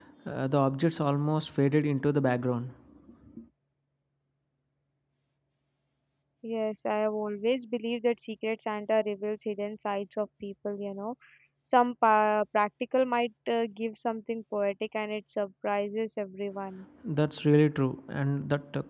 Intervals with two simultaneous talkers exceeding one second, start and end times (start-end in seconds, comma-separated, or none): none